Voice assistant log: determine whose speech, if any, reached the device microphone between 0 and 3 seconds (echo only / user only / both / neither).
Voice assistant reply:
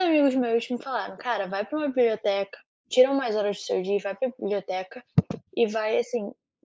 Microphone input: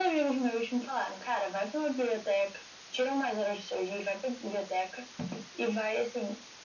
echo only